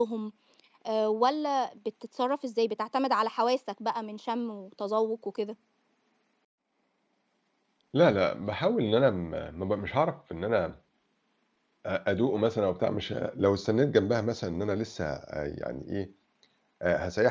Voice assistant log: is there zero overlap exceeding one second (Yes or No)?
Yes